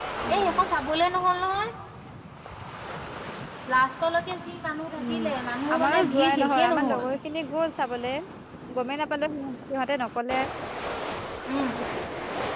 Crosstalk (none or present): present